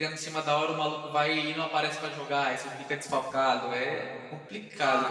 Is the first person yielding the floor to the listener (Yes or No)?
Yes